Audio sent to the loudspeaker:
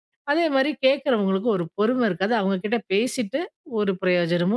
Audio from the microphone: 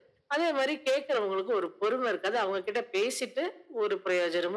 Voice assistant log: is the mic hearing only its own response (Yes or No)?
Yes